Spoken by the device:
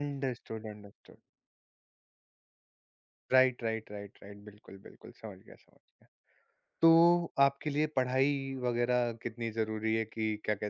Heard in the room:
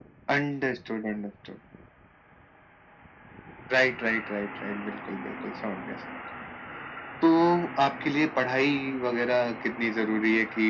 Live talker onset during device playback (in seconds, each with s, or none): none